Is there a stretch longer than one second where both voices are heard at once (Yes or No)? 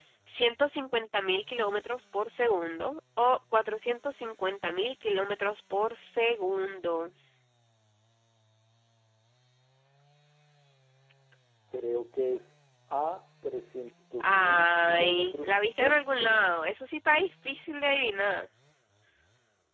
Yes